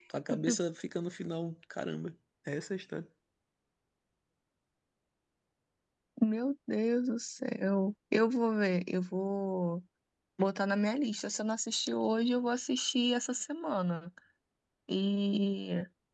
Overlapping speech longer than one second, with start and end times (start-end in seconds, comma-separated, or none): none